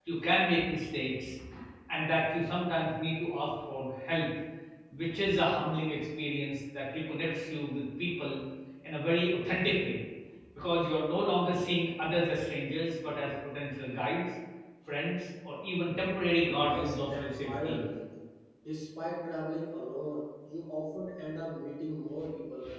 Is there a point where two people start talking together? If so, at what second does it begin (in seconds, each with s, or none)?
16.6 s